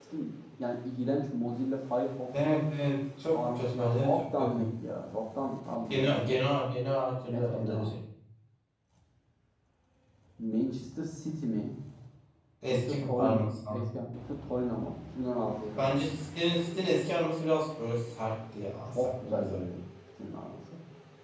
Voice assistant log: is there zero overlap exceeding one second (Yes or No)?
No